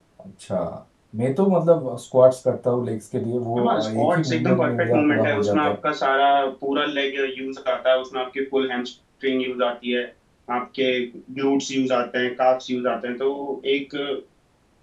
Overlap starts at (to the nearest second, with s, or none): 4 s